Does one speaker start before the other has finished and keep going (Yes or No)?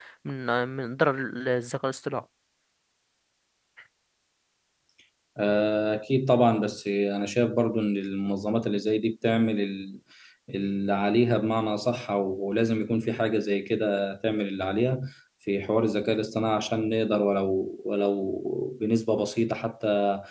No